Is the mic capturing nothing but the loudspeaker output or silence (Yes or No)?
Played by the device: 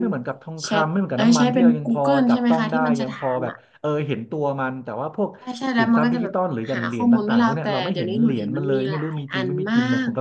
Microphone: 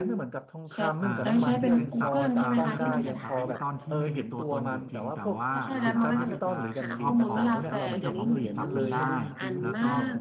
No